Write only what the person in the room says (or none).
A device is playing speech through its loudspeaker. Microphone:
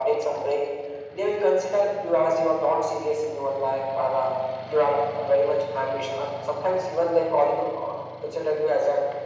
none